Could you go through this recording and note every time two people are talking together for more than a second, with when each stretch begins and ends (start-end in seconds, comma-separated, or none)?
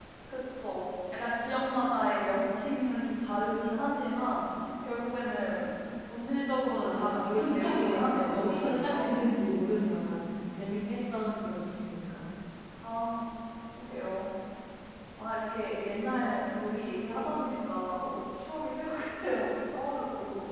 6.8-9.1